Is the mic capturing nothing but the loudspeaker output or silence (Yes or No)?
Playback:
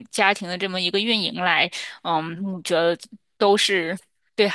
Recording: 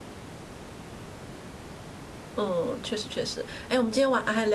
No